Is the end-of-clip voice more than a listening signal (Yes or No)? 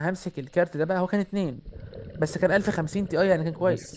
Yes